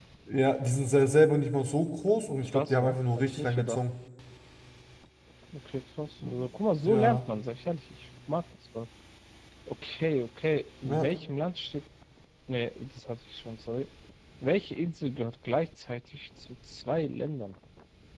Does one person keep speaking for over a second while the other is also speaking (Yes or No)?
Yes